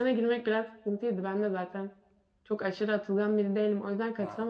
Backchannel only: Yes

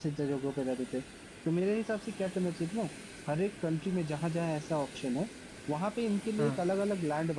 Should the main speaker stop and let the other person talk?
No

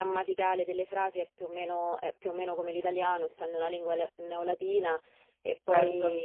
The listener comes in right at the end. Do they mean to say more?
No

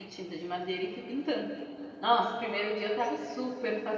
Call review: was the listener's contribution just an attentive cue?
Yes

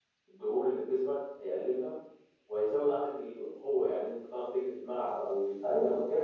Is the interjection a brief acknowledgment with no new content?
No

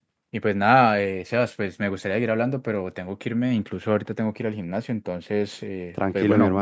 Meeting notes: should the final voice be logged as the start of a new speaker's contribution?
Yes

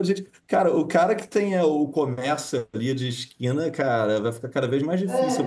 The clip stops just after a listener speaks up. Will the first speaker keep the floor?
No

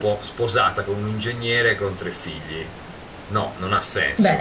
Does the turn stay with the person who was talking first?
No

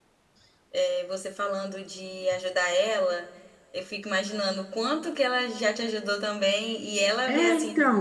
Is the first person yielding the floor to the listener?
No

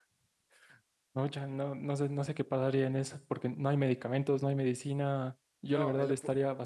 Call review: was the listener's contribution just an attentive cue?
Yes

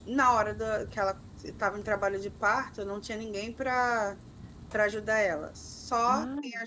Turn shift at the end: No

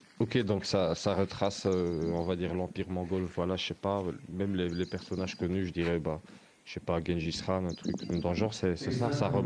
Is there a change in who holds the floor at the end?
Yes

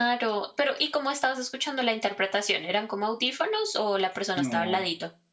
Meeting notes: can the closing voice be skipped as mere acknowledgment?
No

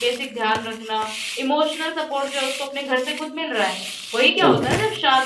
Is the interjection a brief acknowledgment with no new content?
Yes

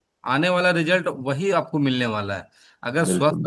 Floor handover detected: No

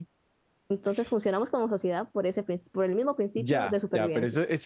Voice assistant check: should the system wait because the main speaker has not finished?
No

